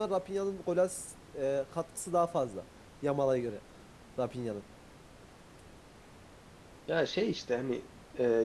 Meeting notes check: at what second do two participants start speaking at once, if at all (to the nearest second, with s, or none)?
none